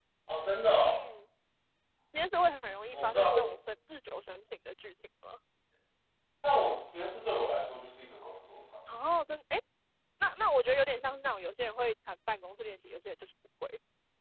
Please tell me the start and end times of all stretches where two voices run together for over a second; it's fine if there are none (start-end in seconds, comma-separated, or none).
none